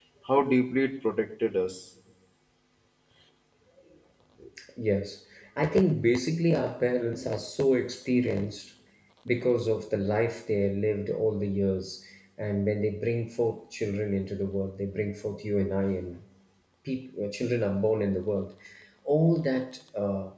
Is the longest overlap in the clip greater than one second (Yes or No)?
No